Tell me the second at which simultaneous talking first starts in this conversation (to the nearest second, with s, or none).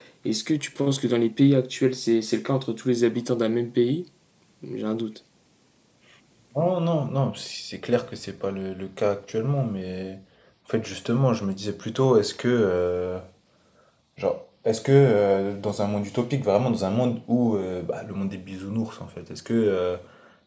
none